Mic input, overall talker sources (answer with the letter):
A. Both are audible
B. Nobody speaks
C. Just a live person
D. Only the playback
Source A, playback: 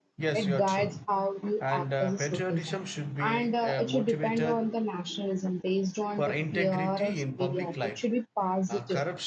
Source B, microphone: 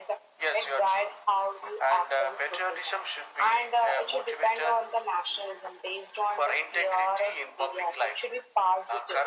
D